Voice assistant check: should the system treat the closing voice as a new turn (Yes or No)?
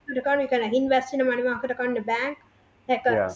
No